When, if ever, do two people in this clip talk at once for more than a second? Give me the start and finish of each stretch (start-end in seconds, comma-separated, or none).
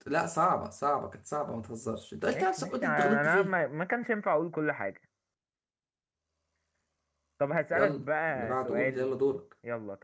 2.3-3.5, 7.7-9.1